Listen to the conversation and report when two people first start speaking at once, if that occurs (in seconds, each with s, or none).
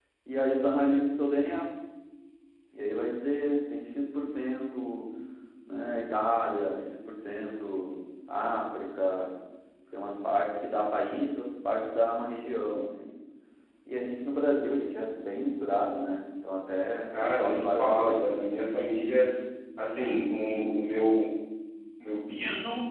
17.1 s